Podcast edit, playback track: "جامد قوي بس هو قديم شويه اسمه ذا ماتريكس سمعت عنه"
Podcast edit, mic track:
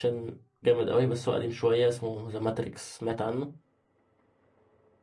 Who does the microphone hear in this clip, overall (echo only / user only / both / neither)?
echo only